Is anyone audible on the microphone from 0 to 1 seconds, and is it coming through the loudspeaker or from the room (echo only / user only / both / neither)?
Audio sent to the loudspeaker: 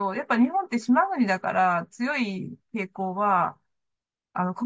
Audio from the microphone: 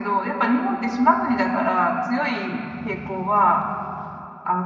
echo only